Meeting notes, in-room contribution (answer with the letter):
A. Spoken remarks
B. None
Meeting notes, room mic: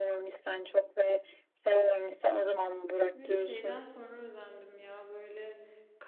A